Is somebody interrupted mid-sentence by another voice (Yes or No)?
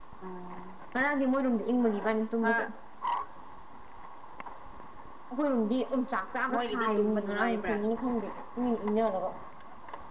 Yes